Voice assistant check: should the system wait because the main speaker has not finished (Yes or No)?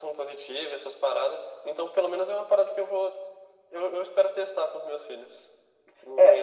No